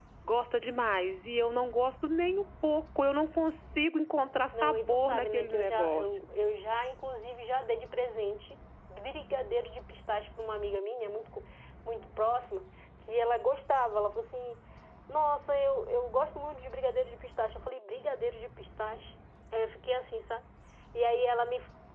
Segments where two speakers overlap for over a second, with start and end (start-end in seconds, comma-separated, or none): 4.5-6.2